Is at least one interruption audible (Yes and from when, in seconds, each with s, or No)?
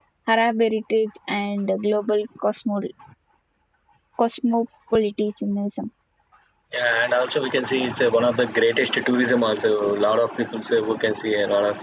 No